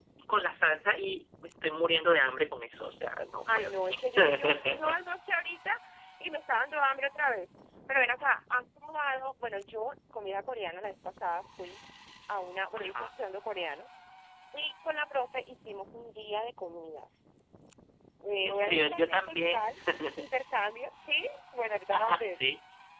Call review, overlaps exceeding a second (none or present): present